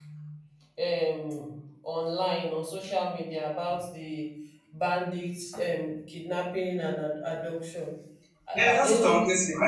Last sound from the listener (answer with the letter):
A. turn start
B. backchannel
A